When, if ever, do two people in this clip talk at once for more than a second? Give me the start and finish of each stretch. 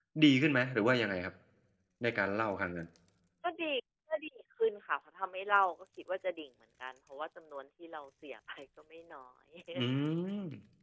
none

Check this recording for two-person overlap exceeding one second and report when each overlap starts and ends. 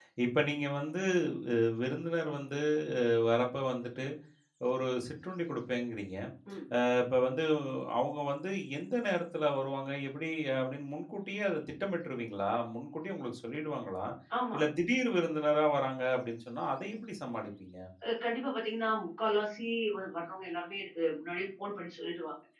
none

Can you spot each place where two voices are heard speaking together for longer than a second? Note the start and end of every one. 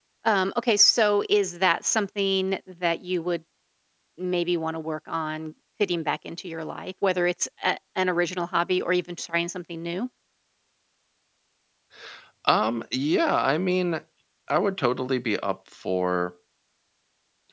none

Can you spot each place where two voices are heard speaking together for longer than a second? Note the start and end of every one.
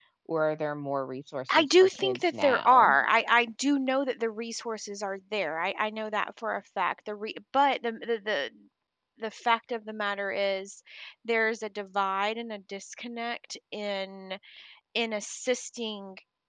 1.6-3.0

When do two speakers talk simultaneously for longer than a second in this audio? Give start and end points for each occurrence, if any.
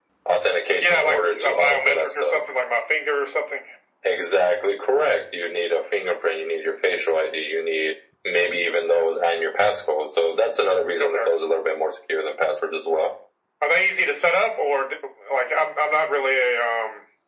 0.8-2.4

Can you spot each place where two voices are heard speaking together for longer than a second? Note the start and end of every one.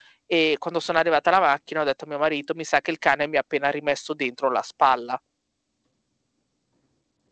none

